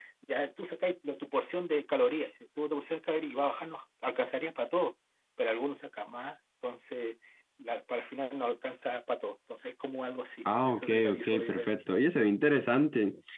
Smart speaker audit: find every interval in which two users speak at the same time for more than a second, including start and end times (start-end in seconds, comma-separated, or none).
10.6-11.8